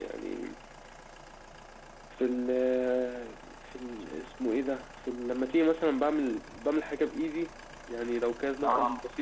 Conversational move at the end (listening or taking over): listening